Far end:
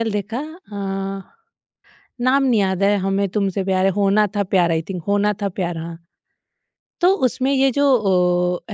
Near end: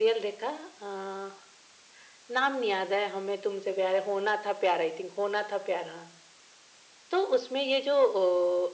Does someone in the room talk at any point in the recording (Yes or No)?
No